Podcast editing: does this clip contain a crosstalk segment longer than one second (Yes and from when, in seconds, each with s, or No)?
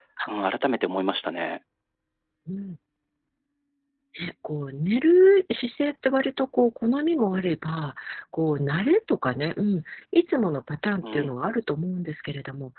No